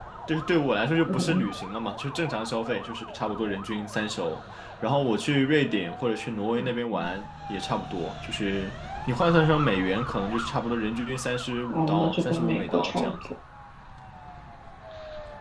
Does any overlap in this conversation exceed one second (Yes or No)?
Yes